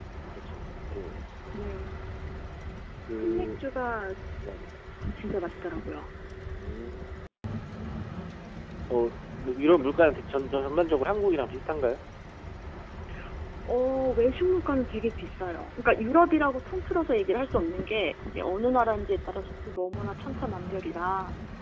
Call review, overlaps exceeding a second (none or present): none